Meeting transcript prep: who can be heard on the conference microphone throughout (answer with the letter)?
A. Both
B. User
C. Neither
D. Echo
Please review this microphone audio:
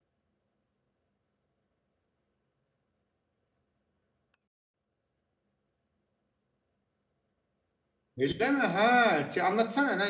B